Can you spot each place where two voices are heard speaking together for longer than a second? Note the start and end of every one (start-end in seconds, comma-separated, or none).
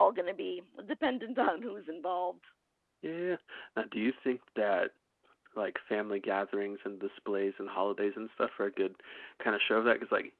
none